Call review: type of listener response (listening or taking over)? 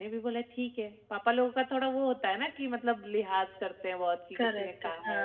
taking over